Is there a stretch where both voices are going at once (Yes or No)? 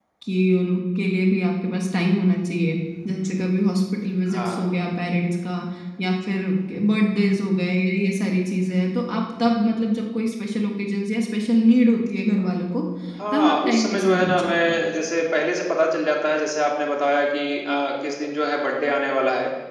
Yes